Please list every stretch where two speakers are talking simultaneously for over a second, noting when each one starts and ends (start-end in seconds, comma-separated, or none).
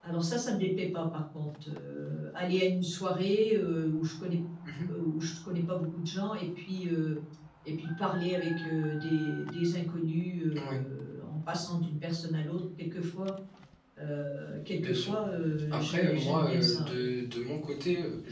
15.7-17.1